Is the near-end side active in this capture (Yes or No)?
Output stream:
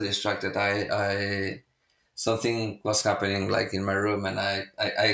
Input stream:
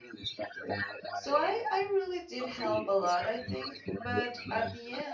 Yes